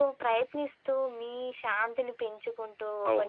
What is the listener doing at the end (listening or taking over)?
listening